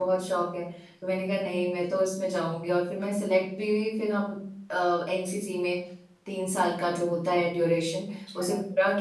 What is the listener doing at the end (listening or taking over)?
listening